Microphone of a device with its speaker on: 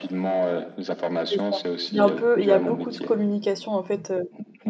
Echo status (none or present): present